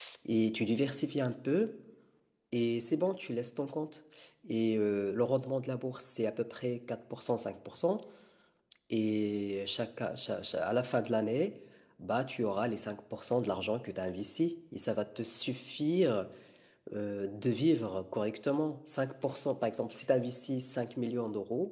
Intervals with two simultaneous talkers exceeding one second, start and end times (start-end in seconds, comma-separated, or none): none